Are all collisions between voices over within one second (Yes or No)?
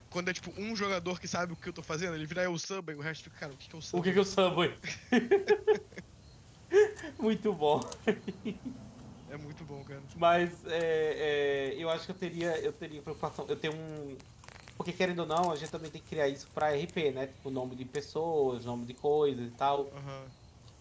Yes